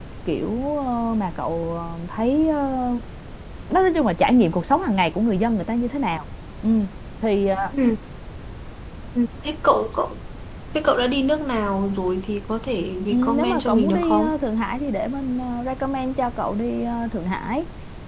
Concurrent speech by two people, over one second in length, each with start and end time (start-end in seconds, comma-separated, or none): 13.1-14.3